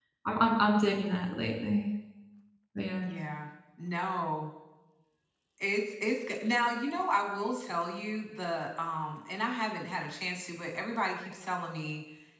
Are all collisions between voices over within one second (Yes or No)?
Yes